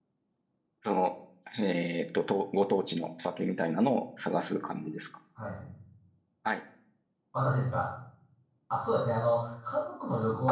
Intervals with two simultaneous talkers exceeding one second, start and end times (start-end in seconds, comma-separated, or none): none